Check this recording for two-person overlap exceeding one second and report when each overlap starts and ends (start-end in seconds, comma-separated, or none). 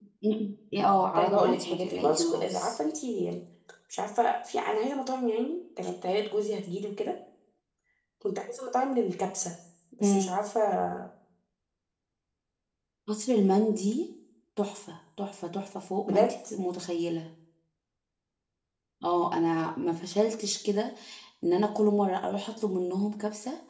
1.1-2.7